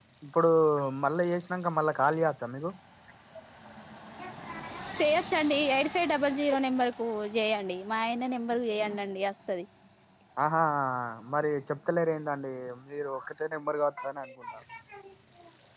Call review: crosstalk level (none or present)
none